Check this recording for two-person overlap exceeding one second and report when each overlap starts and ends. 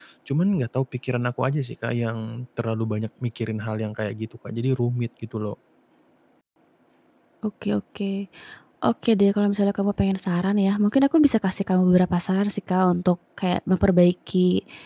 none

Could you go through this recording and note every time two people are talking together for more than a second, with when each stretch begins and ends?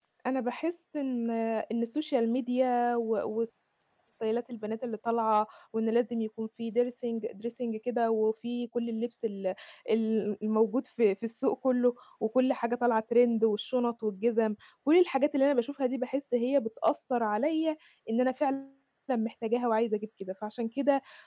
none

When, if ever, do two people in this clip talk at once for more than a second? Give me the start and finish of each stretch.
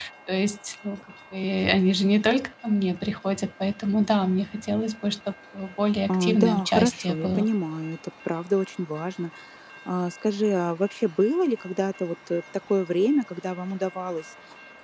6.1-7.5

